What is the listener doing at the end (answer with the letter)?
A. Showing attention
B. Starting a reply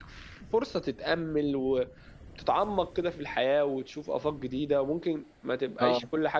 A